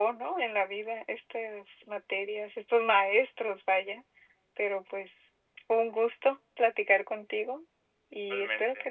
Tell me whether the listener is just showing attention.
Yes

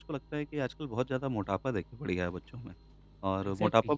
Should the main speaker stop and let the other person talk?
No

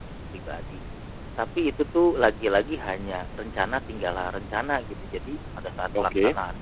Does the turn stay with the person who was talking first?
Yes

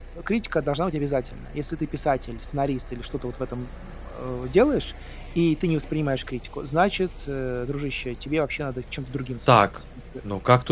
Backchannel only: No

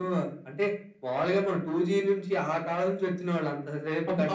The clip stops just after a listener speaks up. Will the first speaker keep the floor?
Yes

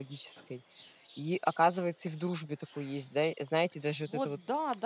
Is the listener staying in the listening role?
No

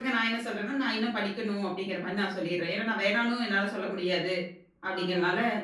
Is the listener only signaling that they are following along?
Yes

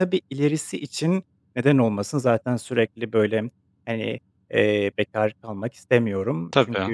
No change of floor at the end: Yes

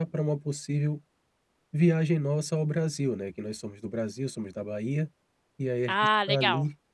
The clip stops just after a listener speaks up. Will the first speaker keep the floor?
Yes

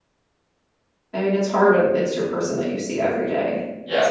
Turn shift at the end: Yes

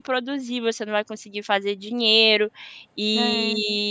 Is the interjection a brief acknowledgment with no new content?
Yes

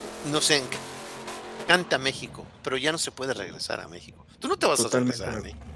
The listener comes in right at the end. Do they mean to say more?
Yes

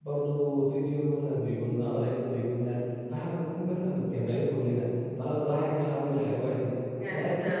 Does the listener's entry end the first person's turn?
Yes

